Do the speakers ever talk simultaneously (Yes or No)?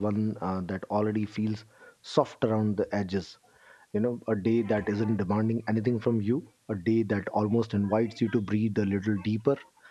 No